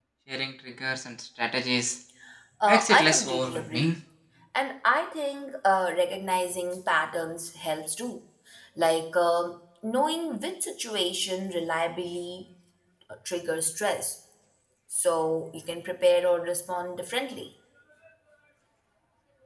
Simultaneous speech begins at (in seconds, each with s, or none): 2.7 s